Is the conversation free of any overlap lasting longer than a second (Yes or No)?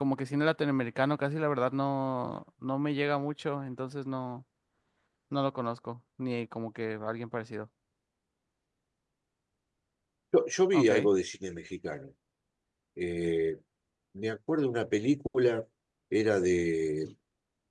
Yes